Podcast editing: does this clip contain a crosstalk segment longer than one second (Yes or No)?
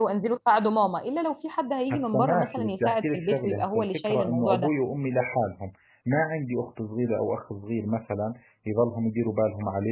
Yes